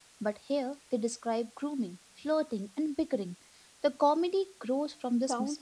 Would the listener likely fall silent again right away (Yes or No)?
No